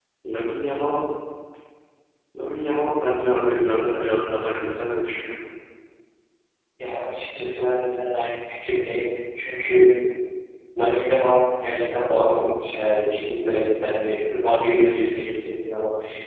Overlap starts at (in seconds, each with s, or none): none